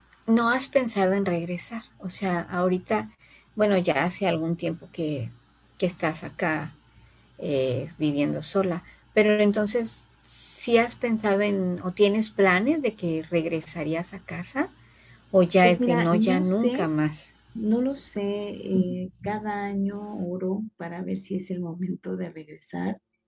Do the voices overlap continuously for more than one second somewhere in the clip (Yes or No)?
Yes